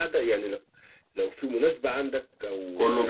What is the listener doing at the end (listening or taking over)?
listening